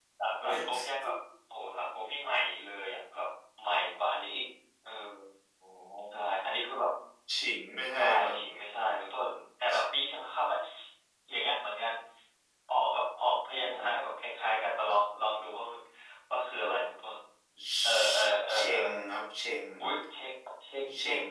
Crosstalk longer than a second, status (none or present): none